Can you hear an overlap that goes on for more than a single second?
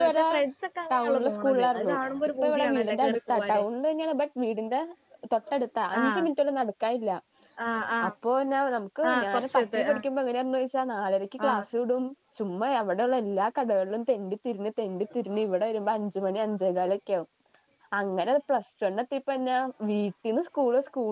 Yes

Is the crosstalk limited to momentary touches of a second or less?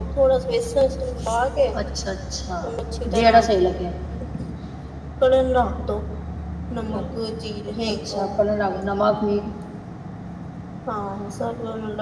Yes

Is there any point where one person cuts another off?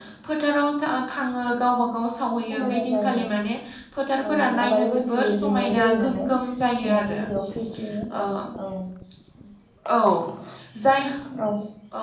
Yes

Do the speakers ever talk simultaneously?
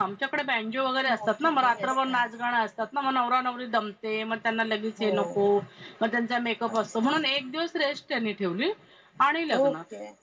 Yes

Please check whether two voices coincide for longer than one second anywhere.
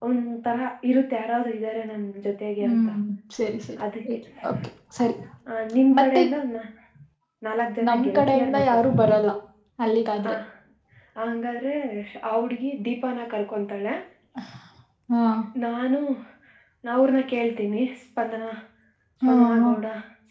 Yes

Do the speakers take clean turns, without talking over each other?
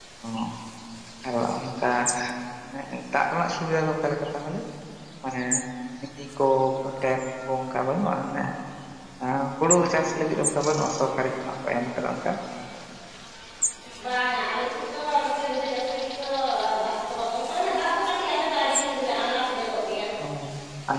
Yes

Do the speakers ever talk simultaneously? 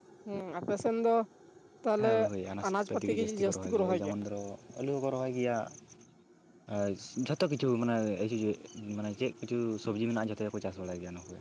Yes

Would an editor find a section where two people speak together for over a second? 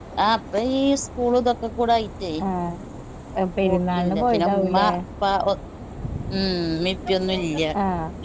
Yes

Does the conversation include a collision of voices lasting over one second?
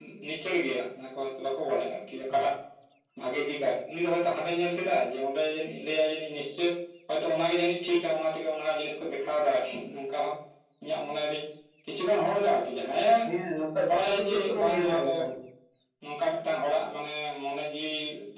Yes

